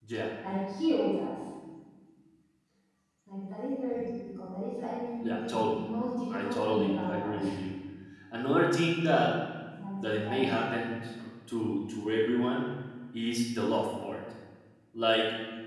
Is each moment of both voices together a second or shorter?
No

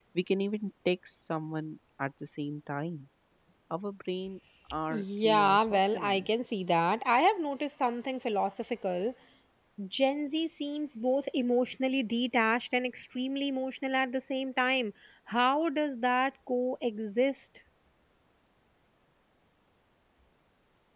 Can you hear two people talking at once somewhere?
Yes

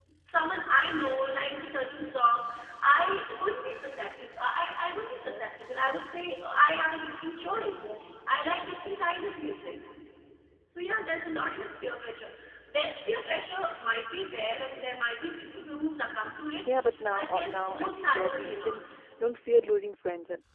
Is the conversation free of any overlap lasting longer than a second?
No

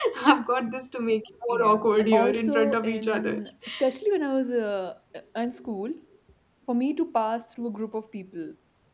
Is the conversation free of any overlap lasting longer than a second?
No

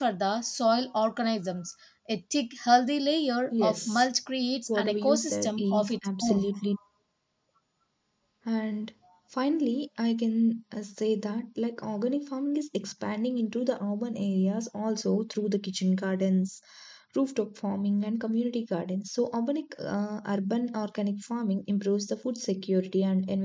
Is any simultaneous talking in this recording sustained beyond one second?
Yes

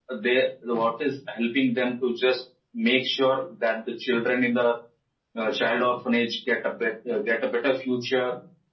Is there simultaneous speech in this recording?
No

